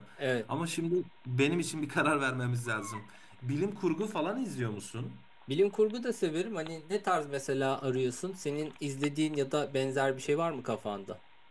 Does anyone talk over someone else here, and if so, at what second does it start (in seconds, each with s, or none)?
none